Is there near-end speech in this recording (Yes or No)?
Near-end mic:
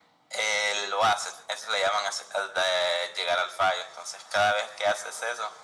No